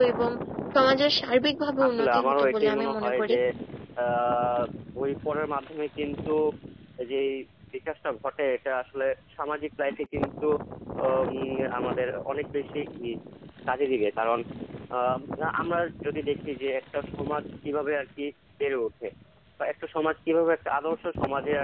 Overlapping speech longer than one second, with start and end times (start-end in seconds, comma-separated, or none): 1.9-3.3